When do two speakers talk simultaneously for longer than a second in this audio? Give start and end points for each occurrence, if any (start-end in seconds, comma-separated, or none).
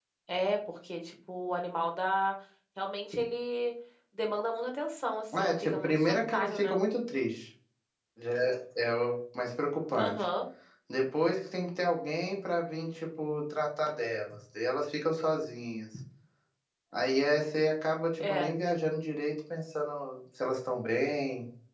5.3-6.8